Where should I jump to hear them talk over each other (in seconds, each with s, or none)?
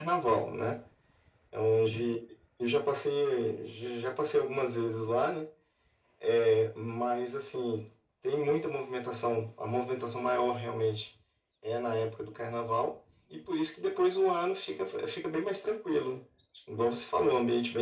none